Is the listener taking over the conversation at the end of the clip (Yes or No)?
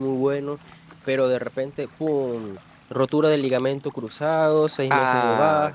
No